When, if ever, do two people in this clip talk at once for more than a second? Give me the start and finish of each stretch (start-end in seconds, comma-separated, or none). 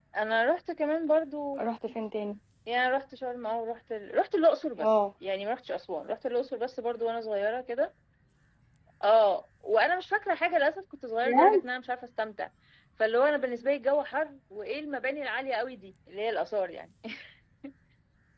none